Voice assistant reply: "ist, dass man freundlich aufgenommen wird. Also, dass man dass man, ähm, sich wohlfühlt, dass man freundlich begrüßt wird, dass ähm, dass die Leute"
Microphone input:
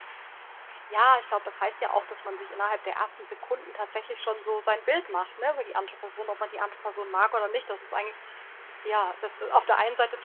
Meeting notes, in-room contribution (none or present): present